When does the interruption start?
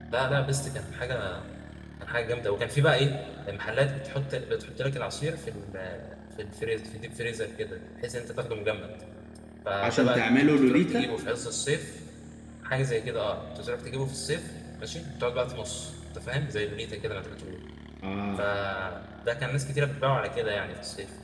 9.8 s

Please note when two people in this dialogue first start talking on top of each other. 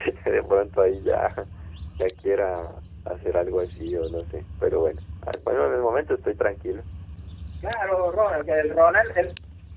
none

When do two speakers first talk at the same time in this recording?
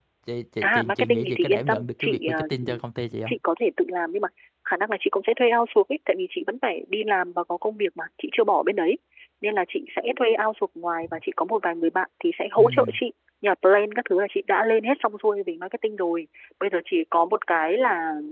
0.6 s

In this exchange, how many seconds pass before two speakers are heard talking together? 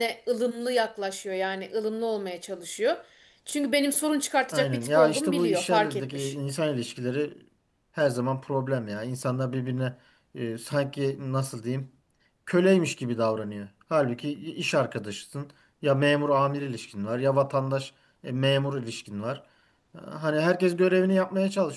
4.5 s

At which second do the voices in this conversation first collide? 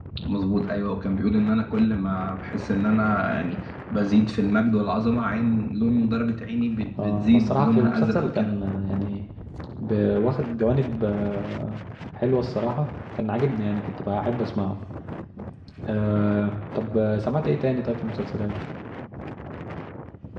7.0 s

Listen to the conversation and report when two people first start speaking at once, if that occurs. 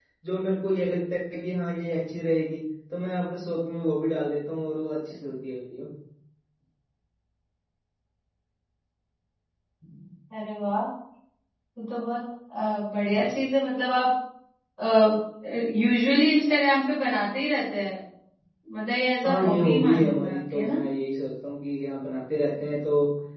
19.2 s

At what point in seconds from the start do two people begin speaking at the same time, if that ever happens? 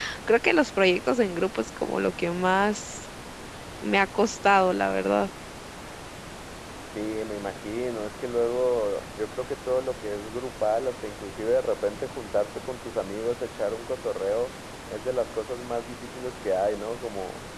none

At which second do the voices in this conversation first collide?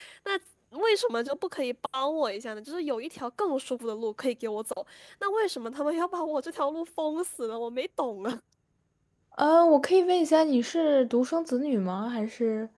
none

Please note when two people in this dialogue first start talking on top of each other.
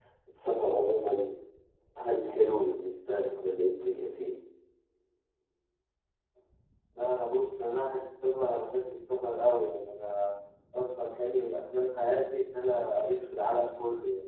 none

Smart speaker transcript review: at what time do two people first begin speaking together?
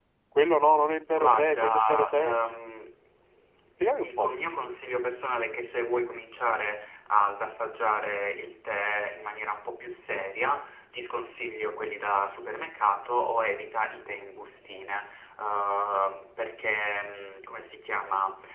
1.1 s

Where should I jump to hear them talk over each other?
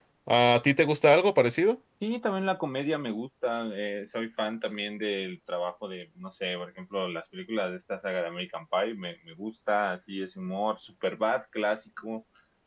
none

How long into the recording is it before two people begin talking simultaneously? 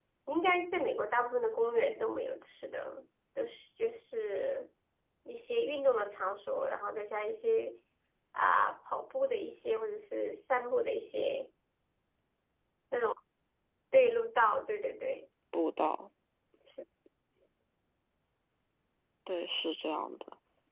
none

